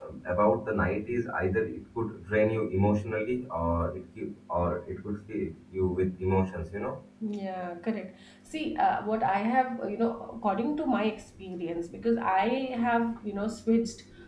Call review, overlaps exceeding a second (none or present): none